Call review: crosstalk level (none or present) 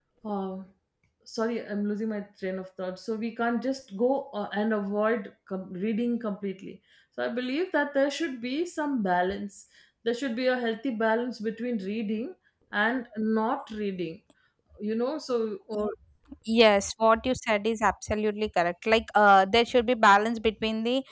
none